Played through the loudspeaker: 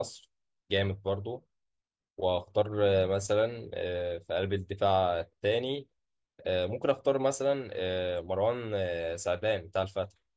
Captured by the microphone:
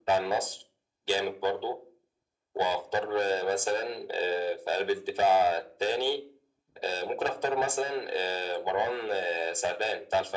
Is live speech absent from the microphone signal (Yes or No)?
Yes